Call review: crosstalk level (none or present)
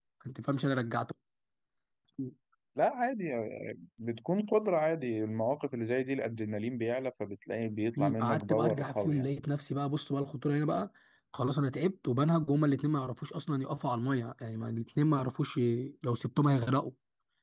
present